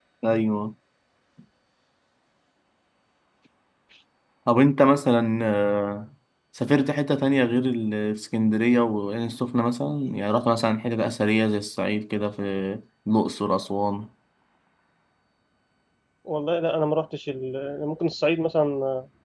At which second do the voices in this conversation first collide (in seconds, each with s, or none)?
none